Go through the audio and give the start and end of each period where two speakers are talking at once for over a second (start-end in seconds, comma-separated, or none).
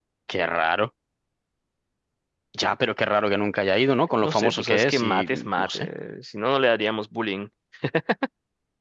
4.2-5.9